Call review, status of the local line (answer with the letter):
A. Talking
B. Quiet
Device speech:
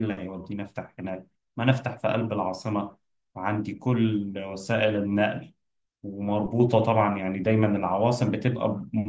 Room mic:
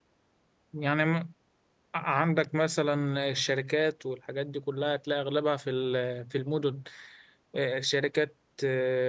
A